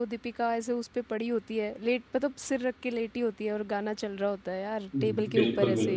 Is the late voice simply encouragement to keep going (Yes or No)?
No